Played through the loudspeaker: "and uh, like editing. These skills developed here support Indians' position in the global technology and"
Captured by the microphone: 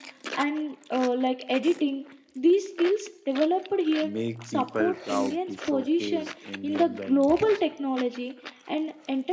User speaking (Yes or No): Yes